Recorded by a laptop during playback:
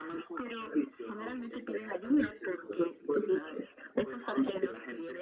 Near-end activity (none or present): none